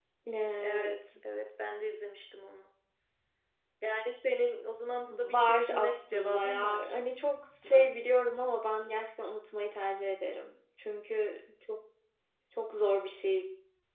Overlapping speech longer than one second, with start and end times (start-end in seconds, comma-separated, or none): 5.1-6.8